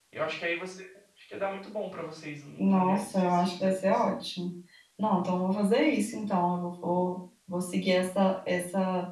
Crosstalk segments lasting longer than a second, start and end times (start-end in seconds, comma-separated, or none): 2.6-4.2